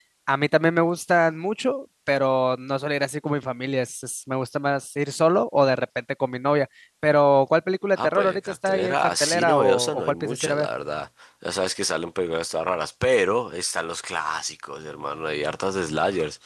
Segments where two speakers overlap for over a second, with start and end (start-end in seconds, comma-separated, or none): 8.0-10.7